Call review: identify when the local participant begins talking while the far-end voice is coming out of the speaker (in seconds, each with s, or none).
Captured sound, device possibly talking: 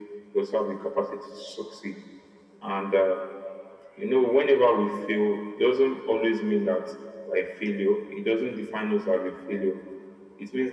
none